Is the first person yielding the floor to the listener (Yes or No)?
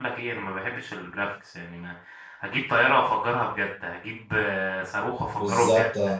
No